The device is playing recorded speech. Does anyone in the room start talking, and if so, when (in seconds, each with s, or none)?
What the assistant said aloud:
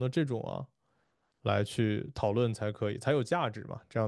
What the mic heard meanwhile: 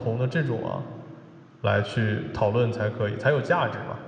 none